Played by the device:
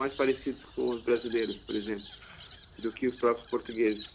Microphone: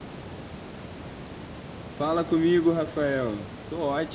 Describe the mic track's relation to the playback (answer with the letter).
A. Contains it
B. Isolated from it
B